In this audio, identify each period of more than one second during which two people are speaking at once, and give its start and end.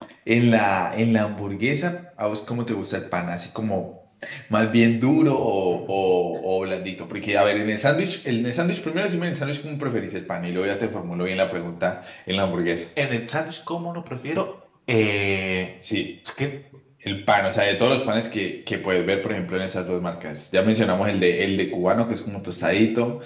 none

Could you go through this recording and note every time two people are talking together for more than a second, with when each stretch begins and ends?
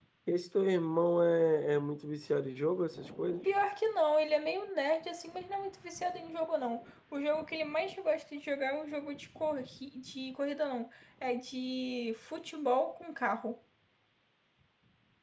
none

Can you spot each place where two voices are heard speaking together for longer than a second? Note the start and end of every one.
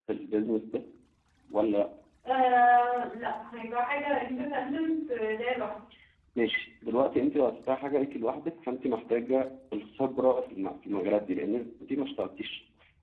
none

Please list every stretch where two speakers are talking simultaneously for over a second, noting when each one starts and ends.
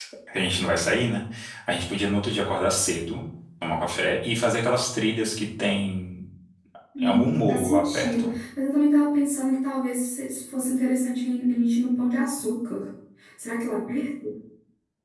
7.0-8.3

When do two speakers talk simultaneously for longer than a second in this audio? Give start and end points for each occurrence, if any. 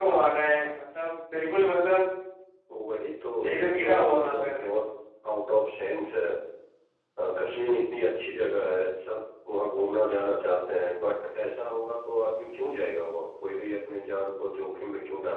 3.5-4.7

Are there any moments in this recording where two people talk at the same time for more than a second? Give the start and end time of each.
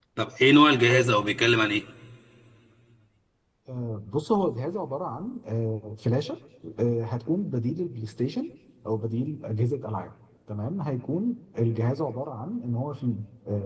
none

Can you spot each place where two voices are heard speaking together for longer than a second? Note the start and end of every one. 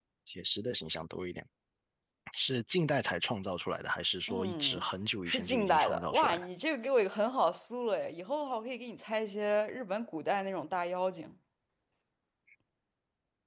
5.3-6.5

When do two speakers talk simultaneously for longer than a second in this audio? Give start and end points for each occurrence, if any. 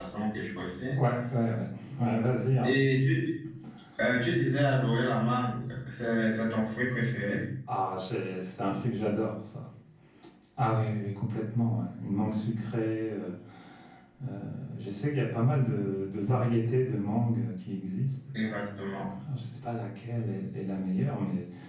none

